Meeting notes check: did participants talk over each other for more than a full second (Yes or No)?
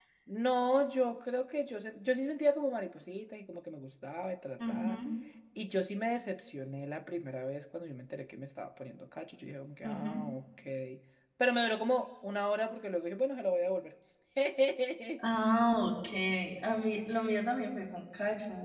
No